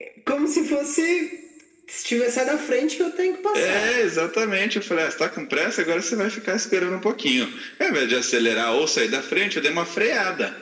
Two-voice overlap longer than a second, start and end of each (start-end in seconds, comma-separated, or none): none